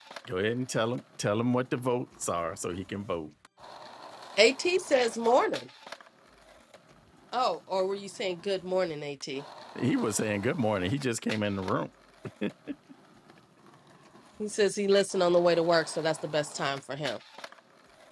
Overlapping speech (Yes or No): No